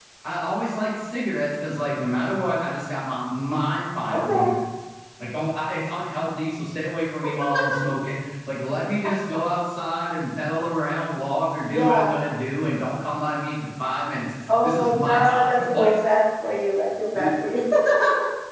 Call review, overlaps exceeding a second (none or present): present